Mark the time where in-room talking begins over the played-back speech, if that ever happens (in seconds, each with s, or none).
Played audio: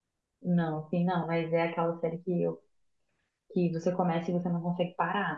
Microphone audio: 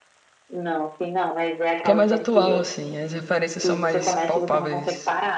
1.8 s